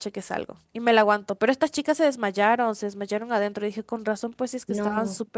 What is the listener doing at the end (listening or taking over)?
taking over